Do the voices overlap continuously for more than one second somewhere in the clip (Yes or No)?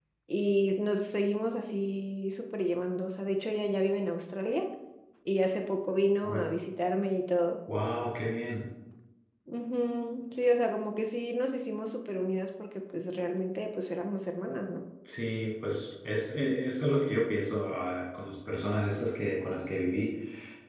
No